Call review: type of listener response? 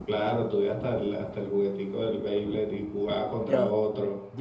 taking over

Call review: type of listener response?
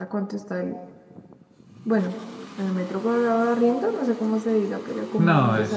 taking over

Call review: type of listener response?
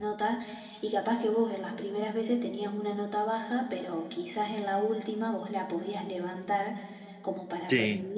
listening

